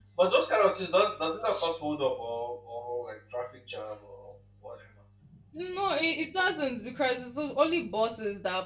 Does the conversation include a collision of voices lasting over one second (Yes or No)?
No